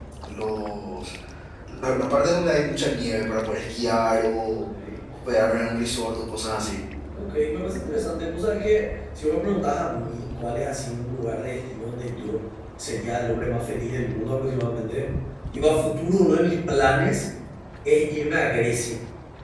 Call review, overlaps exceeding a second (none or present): none